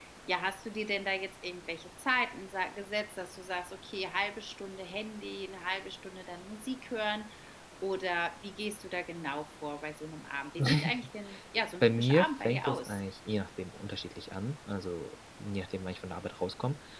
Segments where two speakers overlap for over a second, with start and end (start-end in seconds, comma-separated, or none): 11.5-13.0